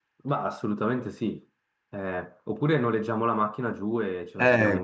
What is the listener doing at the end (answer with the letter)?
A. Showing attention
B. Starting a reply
B